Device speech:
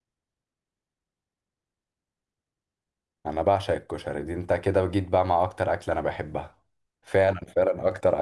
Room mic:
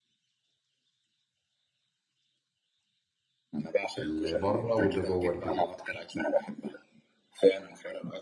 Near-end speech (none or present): present